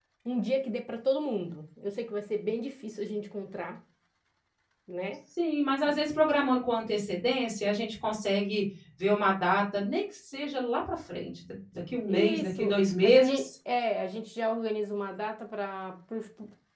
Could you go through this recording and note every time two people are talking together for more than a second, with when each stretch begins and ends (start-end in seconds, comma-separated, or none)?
12.1-13.5